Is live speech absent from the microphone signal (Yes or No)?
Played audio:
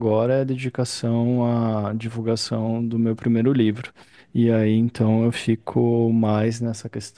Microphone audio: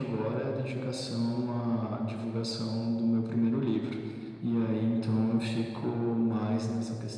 Yes